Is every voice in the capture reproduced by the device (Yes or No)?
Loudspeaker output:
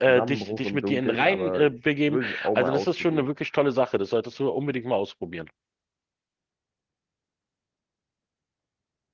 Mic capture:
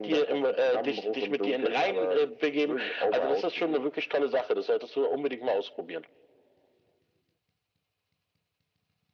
Yes